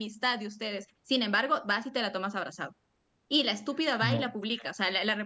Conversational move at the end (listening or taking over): listening